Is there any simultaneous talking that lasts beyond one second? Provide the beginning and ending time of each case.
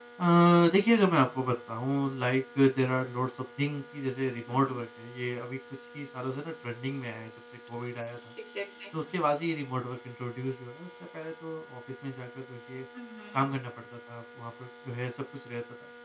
none

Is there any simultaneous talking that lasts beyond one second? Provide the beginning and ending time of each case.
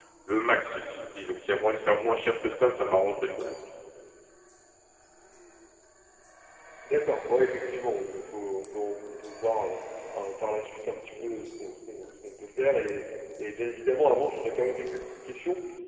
none

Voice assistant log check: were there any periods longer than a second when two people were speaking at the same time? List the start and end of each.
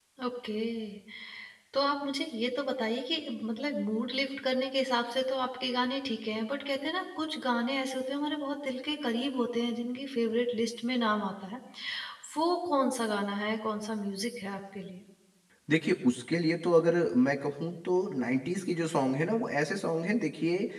none

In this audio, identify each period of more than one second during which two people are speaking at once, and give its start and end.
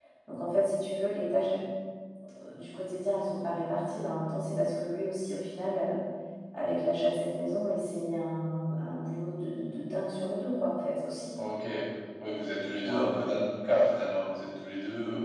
12.5-13.9

